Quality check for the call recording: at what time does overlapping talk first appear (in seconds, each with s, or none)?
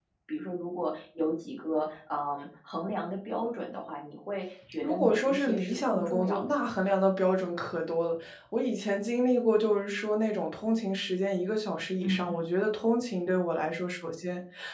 4.8 s